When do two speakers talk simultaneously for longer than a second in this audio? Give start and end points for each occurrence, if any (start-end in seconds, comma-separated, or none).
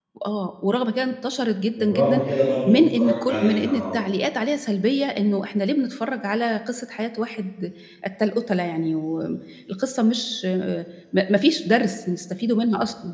2.7-4.0